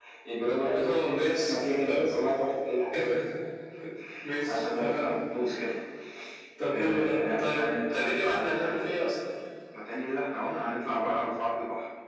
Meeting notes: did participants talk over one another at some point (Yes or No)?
Yes